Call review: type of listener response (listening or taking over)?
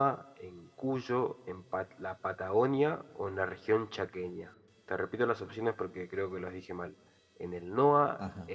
listening